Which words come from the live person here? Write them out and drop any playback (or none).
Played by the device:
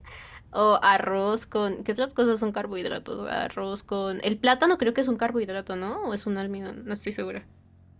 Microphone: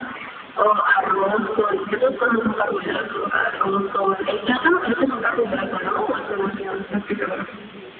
none